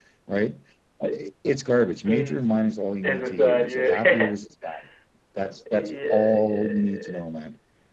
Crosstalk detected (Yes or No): Yes